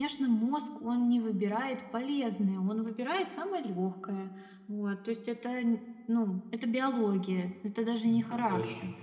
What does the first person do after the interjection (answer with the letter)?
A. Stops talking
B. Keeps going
B